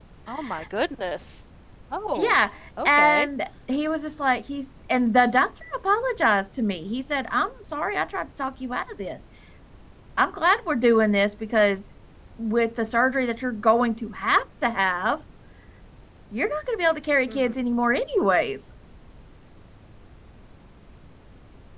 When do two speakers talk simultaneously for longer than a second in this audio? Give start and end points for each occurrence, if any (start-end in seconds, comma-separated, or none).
none